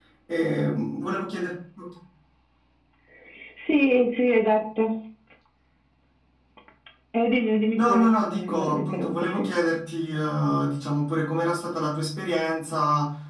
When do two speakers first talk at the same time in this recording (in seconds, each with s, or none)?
7.8 s